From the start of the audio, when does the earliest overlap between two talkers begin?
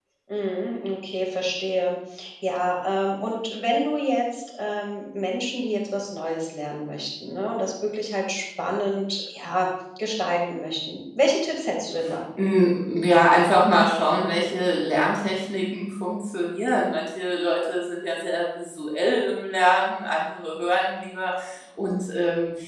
none

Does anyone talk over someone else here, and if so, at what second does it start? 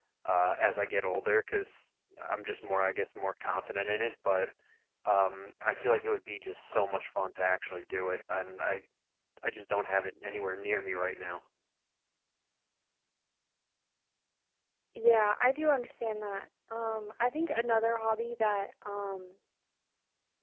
none

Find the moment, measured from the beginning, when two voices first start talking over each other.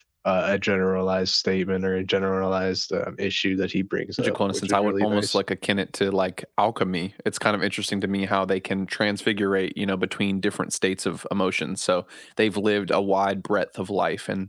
4.2 s

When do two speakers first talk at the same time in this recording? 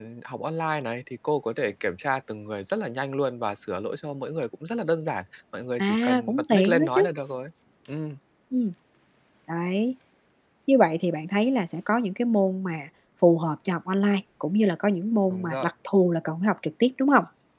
5.8 s

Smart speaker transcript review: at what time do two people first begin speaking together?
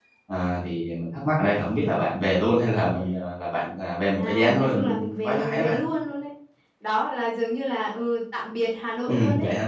4.1 s

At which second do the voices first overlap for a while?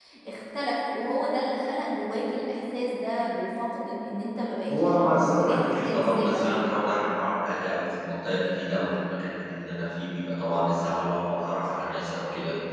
4.7 s

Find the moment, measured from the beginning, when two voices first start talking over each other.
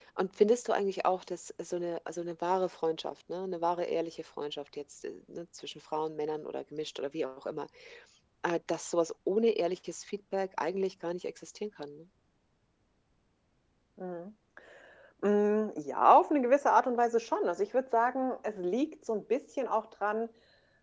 none

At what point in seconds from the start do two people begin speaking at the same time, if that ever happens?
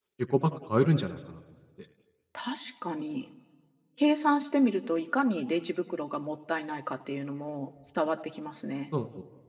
none

